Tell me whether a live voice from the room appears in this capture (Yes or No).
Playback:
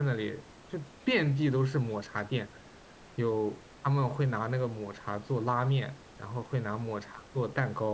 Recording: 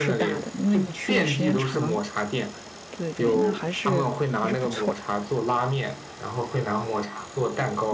Yes